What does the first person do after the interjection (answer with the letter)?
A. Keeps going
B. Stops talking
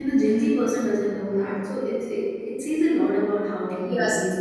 B